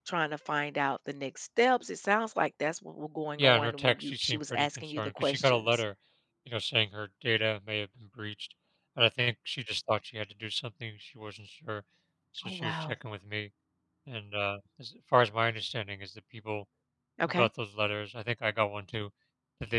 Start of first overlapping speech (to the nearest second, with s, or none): 3 s